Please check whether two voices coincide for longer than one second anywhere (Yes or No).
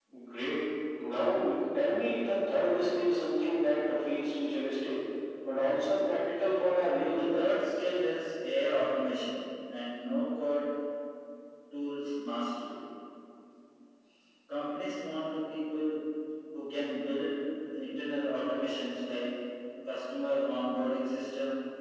No